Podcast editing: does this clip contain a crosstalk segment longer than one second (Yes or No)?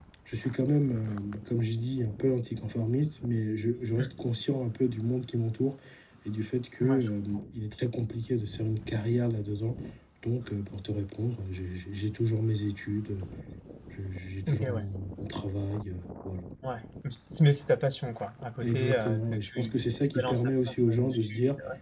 Yes